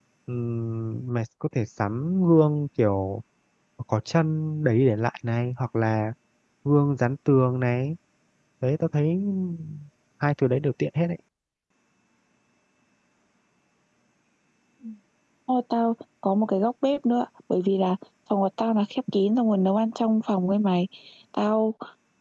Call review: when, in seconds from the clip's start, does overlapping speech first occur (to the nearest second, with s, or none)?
none